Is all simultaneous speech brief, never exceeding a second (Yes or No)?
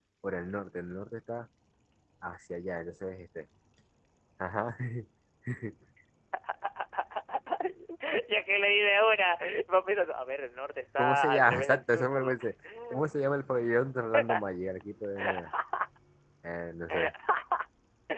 No